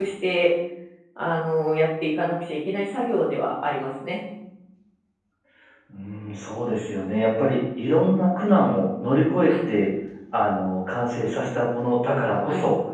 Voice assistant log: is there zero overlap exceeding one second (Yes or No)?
Yes